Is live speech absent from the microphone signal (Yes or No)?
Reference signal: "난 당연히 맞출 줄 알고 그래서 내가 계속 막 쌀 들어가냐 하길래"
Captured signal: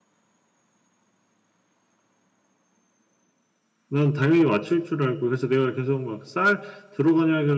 Yes